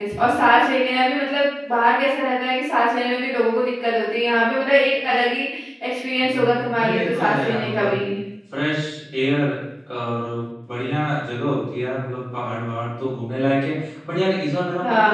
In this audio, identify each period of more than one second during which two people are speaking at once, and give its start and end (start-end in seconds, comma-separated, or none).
6.2-8.0